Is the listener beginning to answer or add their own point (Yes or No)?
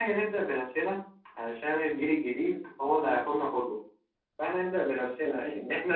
No